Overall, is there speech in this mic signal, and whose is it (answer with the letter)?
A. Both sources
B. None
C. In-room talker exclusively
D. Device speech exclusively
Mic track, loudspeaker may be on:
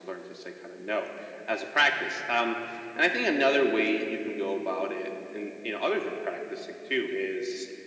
D